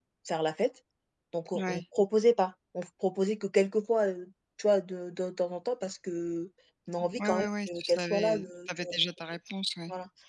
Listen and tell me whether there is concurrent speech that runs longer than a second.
Yes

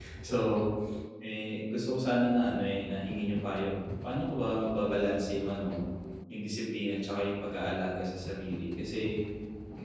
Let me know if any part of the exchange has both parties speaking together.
No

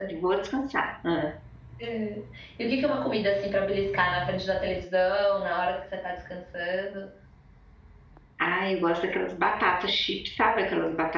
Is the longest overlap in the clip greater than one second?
No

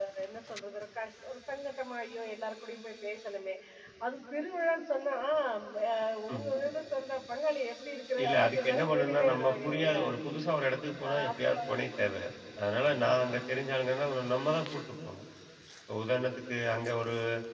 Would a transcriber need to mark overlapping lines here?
Yes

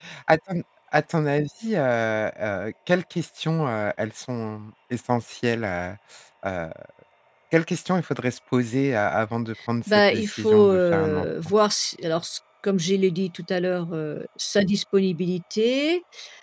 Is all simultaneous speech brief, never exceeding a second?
No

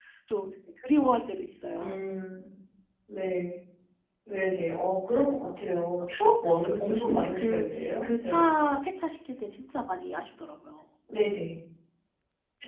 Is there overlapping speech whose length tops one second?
Yes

